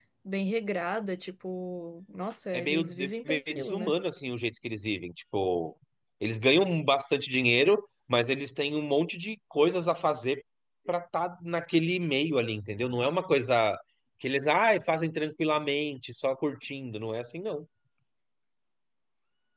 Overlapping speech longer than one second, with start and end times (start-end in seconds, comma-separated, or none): 2.5-3.9